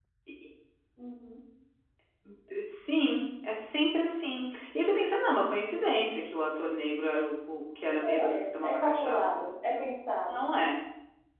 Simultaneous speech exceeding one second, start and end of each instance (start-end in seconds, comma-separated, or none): 7.9-9.8